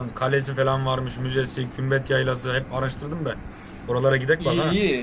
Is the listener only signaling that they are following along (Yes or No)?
No